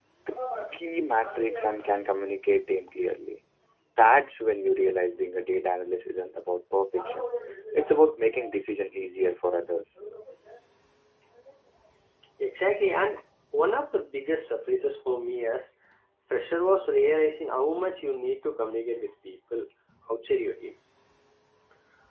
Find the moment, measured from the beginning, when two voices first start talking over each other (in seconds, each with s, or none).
none